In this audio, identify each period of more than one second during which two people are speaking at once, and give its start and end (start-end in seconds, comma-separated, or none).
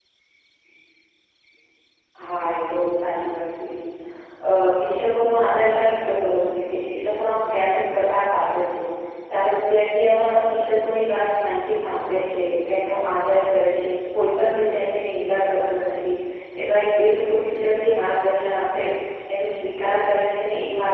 none